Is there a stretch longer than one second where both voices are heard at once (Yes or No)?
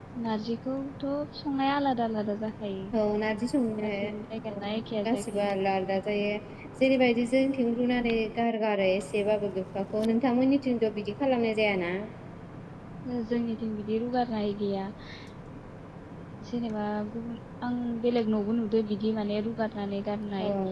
No